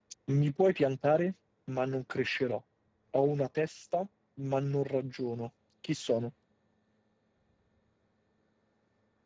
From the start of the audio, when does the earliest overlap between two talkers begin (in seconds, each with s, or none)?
none